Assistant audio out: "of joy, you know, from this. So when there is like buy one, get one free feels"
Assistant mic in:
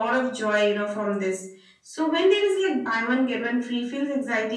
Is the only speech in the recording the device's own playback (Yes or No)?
Yes